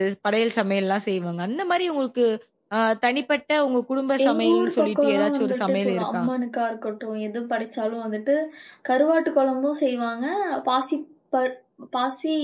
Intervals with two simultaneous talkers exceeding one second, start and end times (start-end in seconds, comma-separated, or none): 4.2-6.2